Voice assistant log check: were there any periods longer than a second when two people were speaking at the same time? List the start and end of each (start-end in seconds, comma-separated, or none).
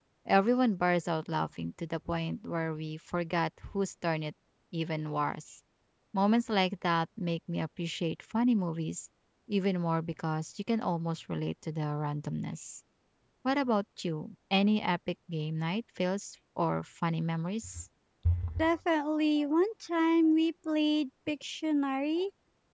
none